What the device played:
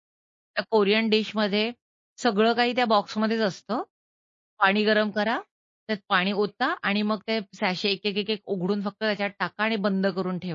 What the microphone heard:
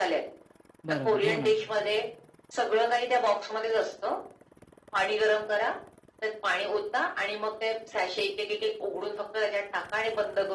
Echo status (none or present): present